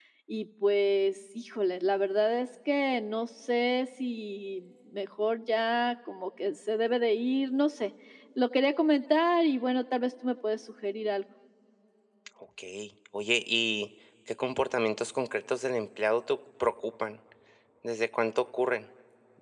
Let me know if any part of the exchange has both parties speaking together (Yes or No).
No